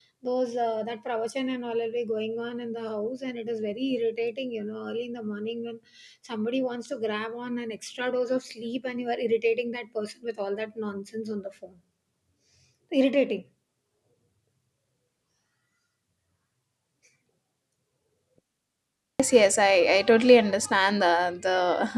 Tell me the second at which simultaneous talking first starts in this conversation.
none

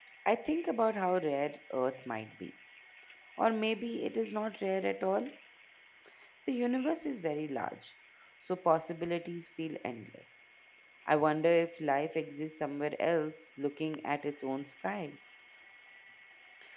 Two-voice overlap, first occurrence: none

